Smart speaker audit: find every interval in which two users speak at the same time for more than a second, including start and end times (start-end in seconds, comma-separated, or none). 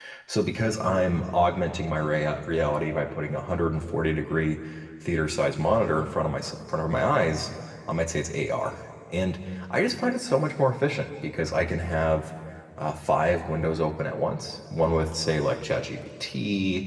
none